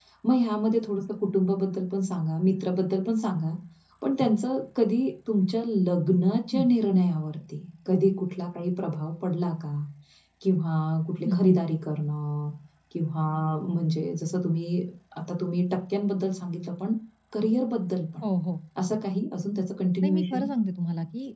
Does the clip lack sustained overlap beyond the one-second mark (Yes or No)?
Yes